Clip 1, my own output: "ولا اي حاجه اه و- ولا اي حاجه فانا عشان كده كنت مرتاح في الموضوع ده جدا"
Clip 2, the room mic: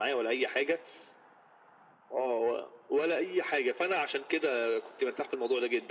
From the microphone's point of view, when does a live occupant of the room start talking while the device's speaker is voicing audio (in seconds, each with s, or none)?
none